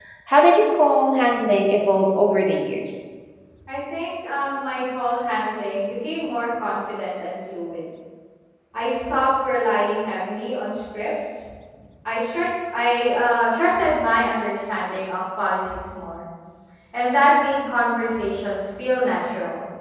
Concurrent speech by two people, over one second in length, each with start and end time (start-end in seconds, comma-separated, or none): none